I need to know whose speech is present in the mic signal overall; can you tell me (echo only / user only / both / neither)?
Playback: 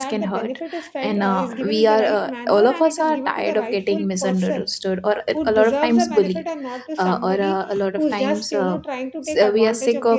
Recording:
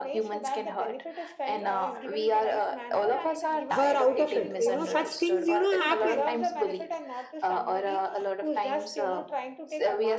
both